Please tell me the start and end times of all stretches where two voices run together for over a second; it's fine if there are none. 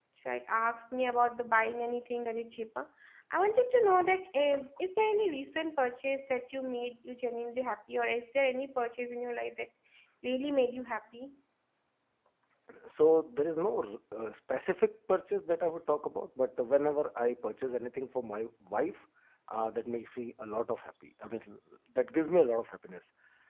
none

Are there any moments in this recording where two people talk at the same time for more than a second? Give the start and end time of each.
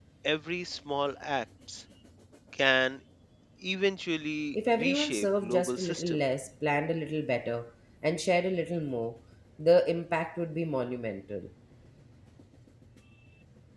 4.5-6.2

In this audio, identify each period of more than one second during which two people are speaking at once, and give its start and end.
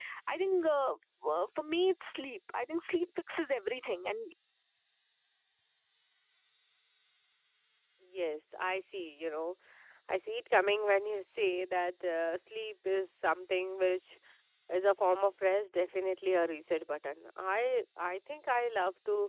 none

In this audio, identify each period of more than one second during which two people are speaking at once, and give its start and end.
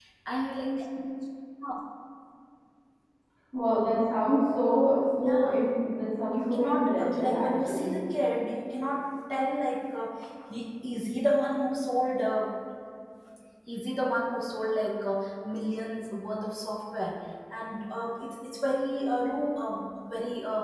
6.3-8.0

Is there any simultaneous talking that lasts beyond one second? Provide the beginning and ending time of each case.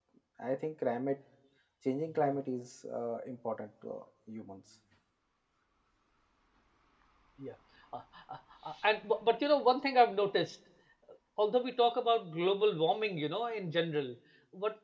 none

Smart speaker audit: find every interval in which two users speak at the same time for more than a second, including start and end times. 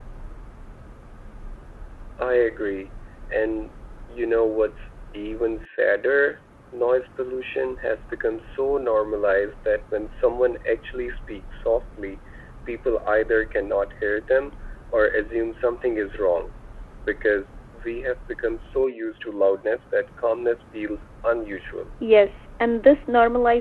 none

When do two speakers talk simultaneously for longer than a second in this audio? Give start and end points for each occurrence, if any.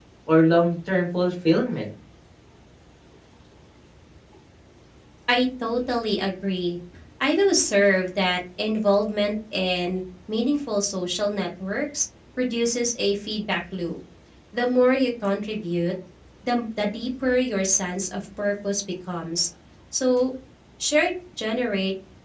none

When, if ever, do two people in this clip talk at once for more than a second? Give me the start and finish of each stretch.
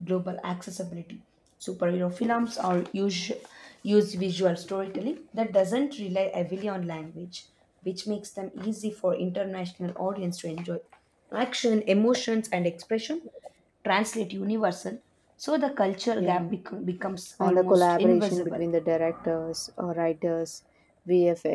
17.4-18.6

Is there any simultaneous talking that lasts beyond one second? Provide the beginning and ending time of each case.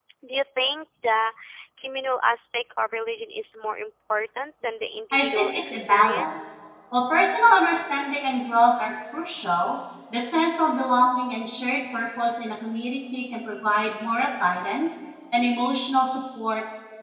5.1-6.4

